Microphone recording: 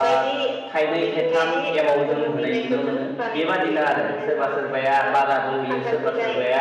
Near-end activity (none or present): present